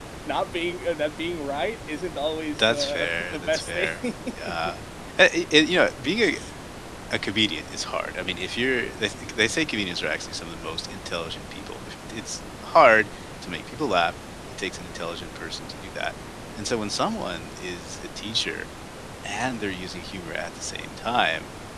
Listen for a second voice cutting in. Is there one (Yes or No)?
Yes